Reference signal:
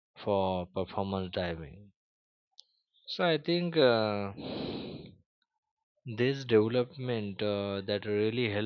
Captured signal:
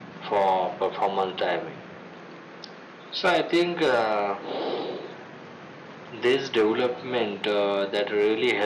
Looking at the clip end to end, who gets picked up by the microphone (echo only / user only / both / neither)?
echo only